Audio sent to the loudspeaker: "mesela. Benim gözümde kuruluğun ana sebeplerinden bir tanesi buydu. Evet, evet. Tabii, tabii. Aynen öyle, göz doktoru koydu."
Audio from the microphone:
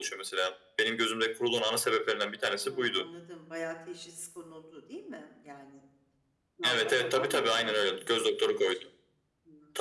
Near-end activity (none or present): present